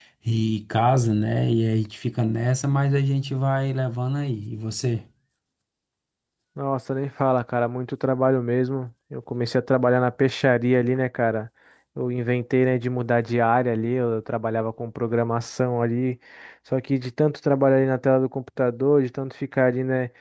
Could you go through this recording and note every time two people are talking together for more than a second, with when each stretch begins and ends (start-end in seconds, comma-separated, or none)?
none